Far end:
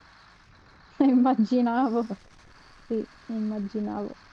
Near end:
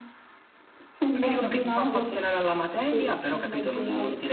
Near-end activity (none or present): present